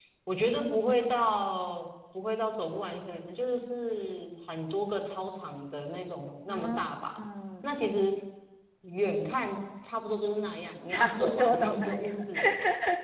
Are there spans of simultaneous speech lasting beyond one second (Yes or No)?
Yes